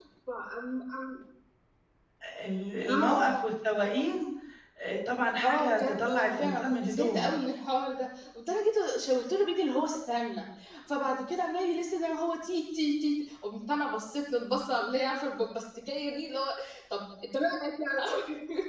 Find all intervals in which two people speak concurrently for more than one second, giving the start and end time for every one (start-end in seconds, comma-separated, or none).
5.4-7.3